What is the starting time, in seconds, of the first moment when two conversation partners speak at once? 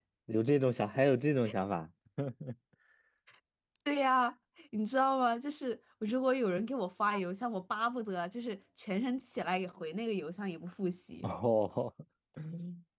none

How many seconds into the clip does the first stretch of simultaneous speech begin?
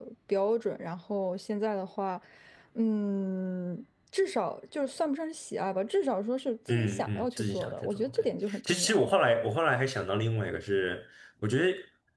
6.7 s

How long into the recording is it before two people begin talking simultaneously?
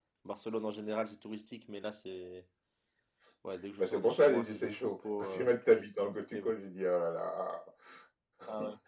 3.8 s

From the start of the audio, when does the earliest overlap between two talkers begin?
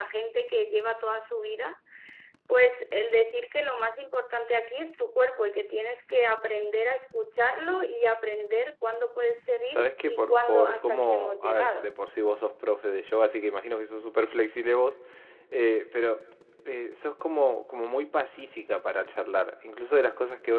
9.7 s

